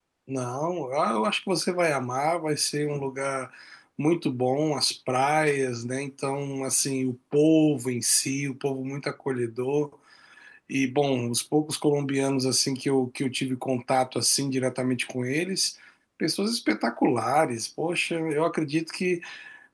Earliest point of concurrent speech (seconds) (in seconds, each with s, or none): none